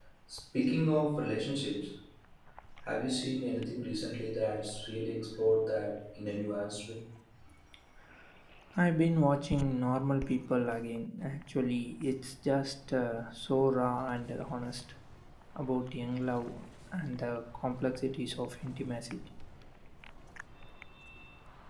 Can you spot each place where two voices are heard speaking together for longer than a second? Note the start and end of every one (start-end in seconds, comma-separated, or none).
none